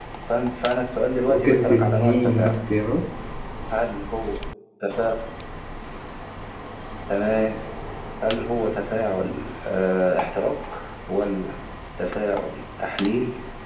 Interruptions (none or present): present